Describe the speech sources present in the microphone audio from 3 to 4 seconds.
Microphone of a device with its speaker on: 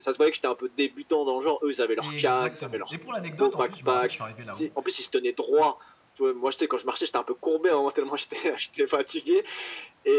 both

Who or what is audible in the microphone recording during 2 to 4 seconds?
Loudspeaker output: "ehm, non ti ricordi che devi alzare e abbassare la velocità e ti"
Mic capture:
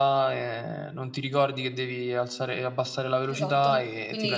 both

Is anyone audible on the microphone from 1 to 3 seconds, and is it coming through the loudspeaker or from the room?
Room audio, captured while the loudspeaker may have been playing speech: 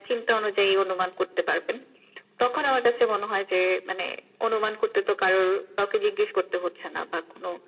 echo only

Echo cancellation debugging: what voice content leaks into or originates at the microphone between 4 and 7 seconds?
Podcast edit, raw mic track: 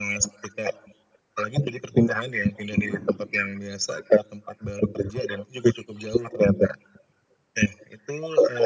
echo only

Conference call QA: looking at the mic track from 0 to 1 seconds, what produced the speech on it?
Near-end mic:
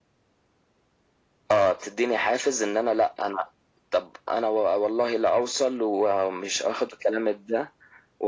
neither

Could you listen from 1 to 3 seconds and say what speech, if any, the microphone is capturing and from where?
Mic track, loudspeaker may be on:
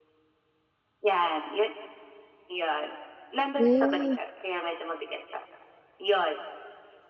echo only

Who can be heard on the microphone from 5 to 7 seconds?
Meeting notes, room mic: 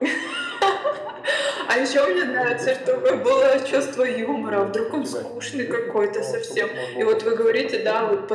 both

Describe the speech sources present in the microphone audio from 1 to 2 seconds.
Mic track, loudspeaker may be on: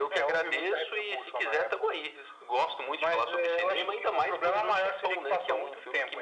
echo only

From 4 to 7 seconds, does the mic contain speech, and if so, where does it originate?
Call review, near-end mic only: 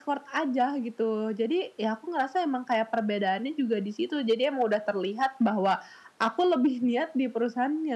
echo only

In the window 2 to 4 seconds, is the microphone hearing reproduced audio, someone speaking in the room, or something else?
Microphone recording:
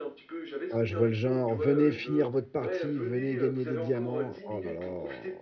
both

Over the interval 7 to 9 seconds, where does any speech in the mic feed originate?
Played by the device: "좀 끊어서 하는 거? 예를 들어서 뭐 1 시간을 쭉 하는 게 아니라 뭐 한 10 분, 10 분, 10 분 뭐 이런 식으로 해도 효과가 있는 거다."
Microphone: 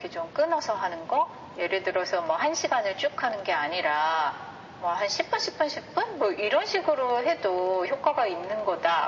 echo only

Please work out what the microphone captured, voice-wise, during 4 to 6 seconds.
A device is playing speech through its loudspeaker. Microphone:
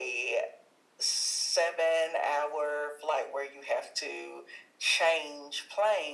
echo only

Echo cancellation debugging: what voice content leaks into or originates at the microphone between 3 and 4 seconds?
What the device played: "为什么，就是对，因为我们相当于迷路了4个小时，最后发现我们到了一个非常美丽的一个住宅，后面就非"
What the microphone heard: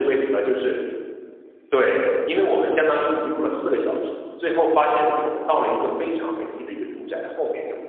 echo only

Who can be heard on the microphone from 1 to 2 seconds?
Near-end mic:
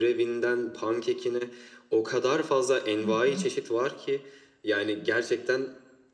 echo only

